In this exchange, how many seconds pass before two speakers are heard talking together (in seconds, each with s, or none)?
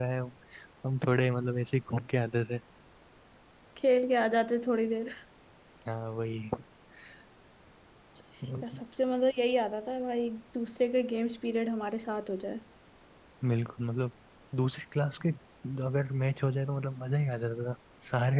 none